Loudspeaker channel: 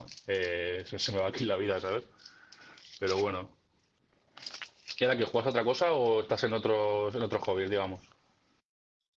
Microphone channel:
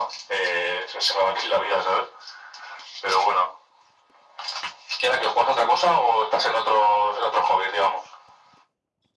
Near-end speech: none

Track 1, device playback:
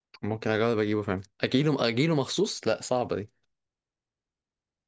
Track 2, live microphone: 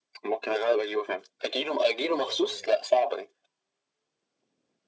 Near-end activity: present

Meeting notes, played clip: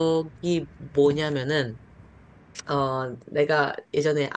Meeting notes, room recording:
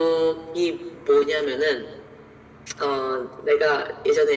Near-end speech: none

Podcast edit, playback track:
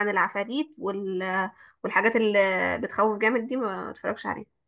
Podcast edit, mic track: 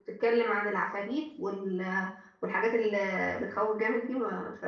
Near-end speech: none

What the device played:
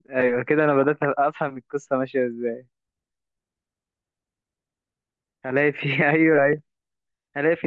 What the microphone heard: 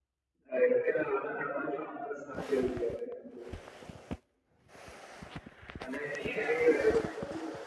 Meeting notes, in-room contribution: none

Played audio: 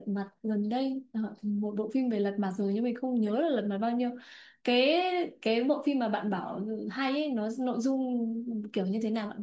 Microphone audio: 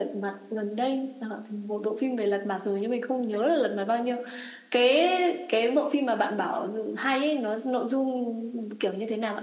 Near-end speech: none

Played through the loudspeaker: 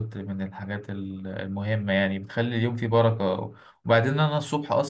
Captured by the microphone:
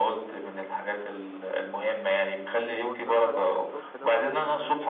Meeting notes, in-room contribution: present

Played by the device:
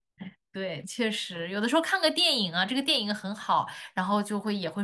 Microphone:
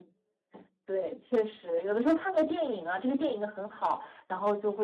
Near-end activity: none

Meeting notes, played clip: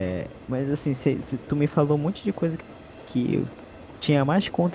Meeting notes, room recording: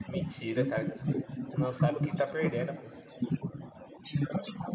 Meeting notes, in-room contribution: present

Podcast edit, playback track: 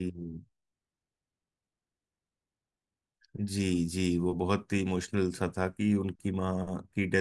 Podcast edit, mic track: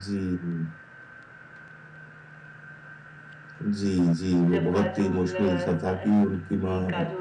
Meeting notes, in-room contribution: present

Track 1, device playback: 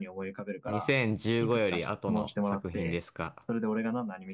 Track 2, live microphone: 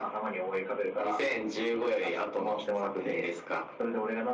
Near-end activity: none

